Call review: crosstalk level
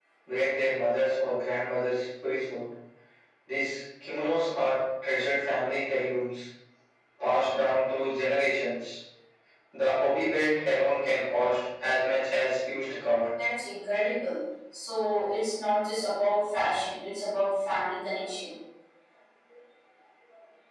none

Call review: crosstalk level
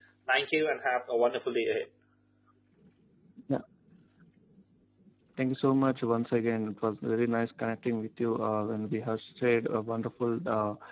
none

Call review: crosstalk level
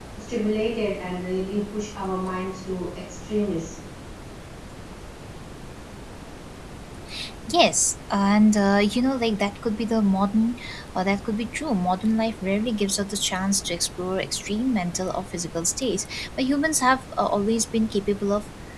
none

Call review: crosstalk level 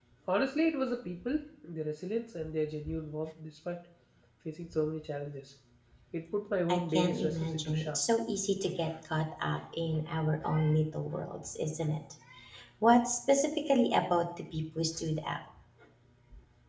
present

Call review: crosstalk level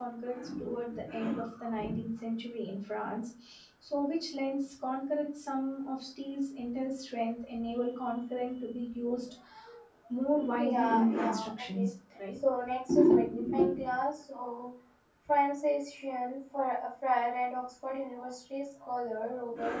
present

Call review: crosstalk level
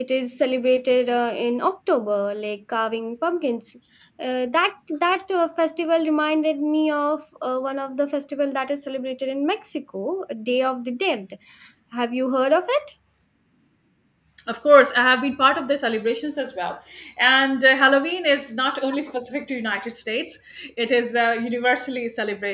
none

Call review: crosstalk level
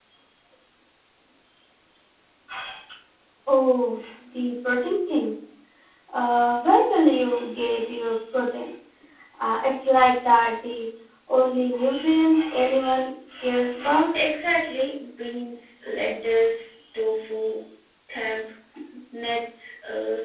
none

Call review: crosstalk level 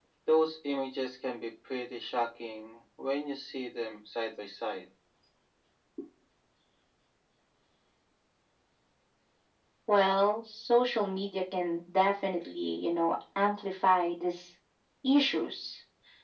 none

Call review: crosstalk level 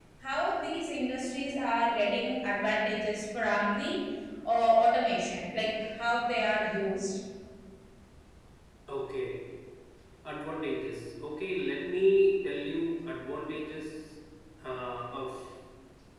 none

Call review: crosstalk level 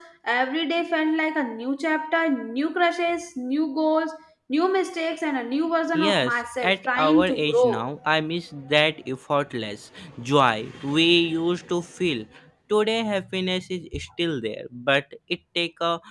present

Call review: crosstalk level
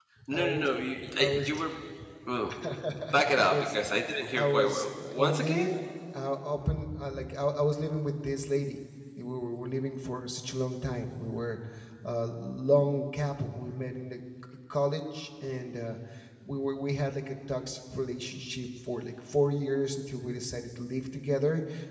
present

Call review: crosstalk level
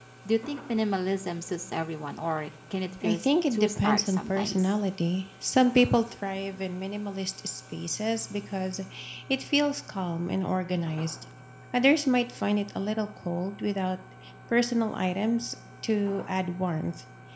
present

